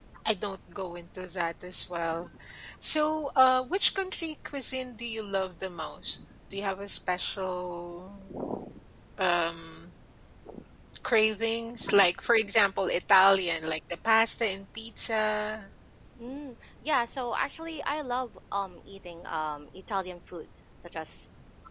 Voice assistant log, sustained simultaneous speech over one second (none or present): none